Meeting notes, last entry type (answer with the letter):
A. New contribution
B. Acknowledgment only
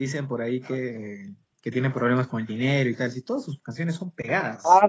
A